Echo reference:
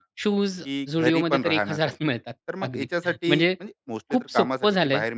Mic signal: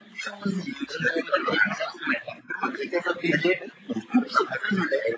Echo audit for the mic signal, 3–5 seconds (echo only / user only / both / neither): echo only